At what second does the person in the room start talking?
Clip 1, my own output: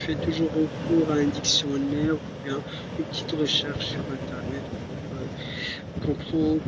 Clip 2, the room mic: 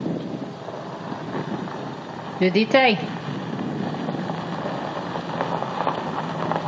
2.4 s

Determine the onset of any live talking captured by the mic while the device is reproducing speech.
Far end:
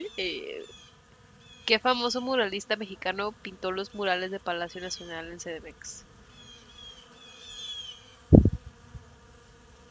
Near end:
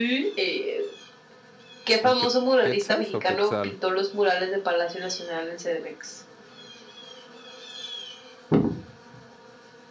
2.0 s

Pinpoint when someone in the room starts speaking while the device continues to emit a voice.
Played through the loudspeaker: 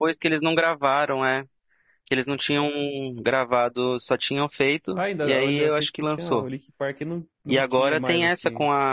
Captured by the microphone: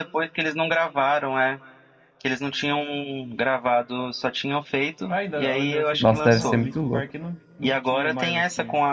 6.0 s

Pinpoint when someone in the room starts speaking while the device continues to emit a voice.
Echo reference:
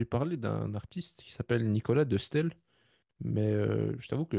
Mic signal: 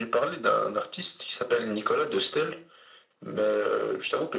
none

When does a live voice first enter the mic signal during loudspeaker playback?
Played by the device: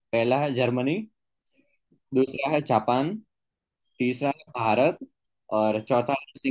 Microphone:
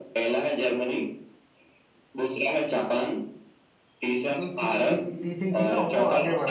4.3 s

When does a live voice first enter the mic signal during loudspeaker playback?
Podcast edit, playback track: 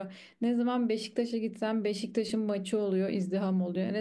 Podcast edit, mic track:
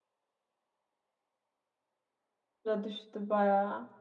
2.6 s

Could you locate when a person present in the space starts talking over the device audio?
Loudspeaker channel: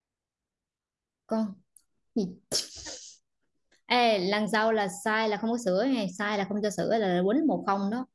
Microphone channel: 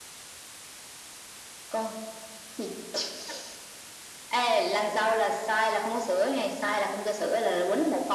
none

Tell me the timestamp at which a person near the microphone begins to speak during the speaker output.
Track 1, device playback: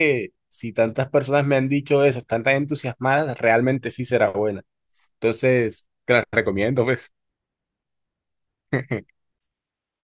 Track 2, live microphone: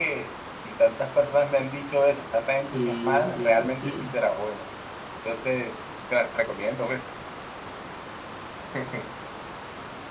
2.7 s

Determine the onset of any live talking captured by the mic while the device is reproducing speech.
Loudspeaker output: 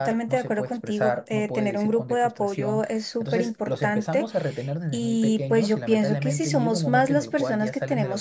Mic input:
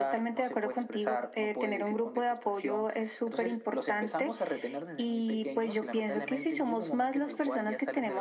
none

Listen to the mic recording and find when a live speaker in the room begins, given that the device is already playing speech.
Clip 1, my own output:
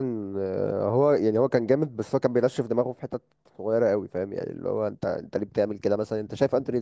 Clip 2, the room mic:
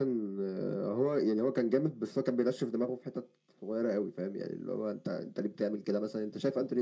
none

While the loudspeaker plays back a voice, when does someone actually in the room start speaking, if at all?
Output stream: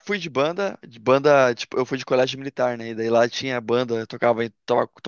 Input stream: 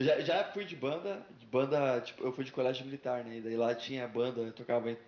none

